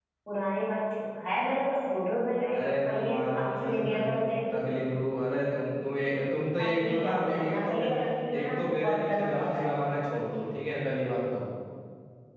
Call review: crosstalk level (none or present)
present